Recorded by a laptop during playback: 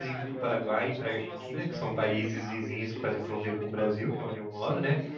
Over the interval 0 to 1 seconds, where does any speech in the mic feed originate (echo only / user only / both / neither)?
both